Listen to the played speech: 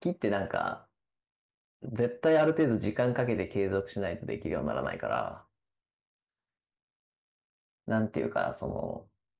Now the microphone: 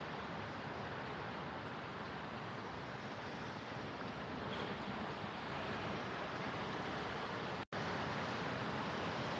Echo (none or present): none